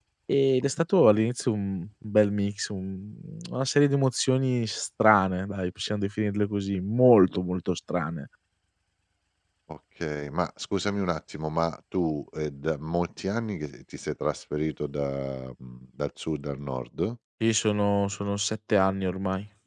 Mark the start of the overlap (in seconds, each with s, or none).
none